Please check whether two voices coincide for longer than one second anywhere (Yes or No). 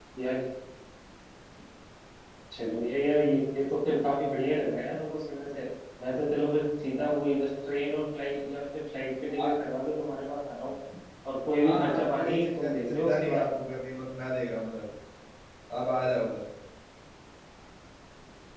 Yes